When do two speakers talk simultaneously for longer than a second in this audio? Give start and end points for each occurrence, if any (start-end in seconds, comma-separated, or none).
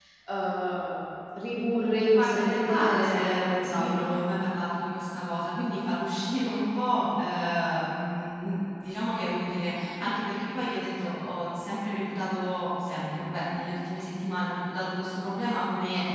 2.1-4.2